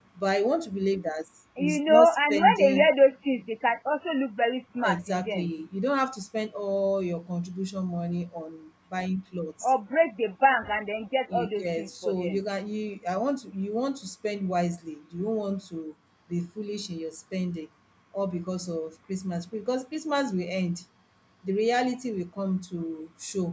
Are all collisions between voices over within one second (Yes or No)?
No